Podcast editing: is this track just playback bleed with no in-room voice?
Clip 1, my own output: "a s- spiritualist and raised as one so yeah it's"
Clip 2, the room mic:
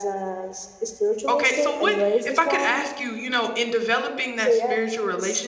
No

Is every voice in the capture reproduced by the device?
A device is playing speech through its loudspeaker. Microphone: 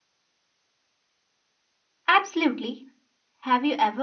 No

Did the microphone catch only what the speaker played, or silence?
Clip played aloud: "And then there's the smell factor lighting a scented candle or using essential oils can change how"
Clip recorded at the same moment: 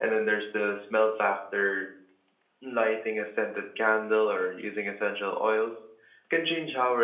Yes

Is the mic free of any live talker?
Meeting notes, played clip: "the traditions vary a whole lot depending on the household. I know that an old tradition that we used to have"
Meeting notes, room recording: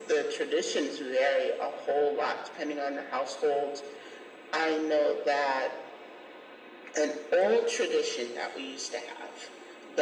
Yes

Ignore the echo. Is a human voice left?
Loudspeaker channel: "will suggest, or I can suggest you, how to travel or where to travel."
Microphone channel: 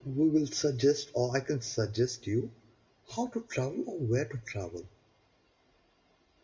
No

